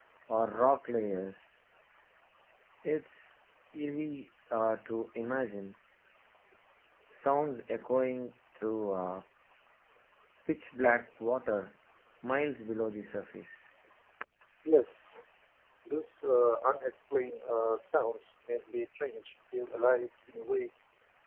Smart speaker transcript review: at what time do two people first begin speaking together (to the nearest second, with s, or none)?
none